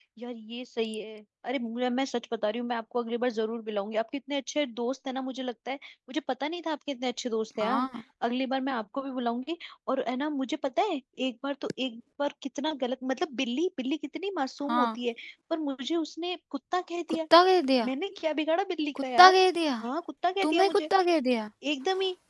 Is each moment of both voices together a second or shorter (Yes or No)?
Yes